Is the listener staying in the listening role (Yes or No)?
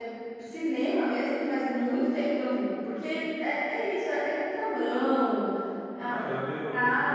No